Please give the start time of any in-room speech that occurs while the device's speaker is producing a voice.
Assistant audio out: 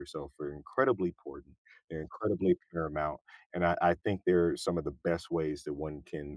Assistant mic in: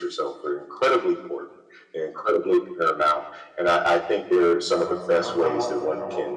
5 s

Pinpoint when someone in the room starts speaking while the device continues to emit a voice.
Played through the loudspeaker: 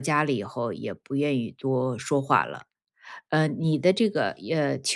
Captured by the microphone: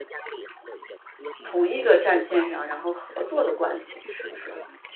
1 s

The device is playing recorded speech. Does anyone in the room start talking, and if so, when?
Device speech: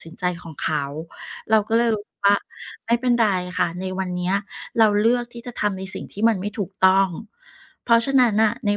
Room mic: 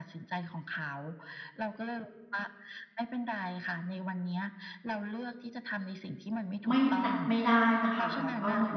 7 s

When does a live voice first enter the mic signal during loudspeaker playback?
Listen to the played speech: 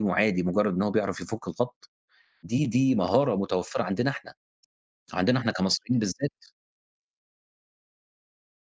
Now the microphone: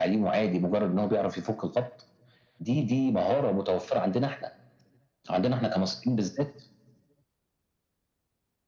none

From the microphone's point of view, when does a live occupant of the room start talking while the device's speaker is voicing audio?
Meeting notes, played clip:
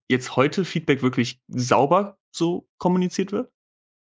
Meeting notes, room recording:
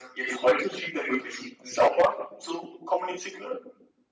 none

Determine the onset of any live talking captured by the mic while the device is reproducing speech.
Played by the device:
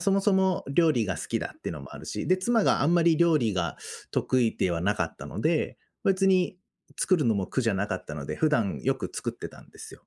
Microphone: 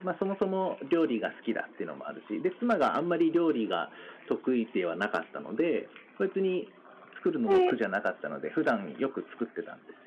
7 s

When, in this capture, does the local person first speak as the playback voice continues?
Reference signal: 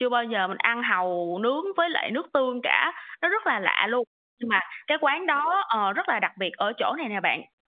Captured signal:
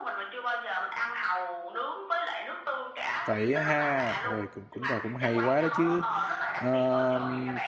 3 s

